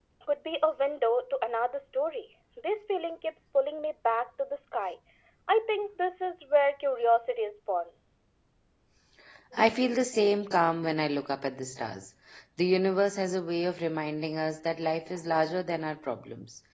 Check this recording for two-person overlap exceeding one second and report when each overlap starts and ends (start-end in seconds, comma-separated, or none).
none